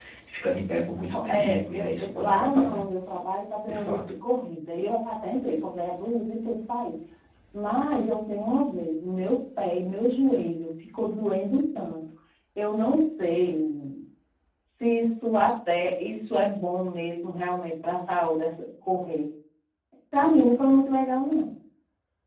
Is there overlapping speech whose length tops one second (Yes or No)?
Yes